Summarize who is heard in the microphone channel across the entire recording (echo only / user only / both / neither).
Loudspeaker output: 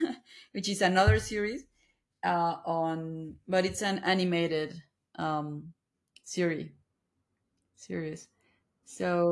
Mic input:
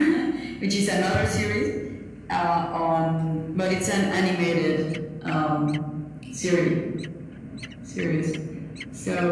echo only